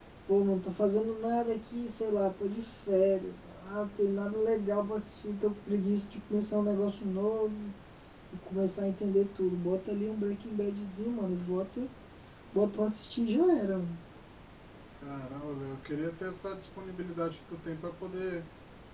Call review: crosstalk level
none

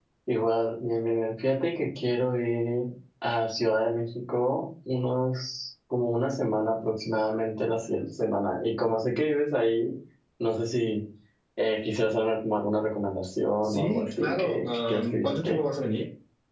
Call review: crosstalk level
present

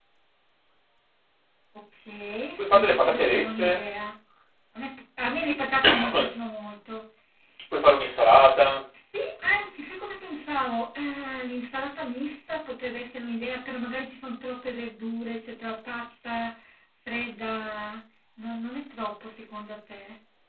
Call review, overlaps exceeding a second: present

